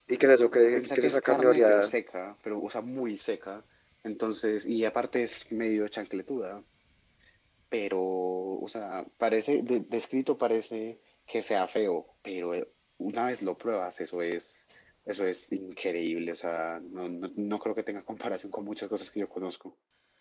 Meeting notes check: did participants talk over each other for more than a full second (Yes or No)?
Yes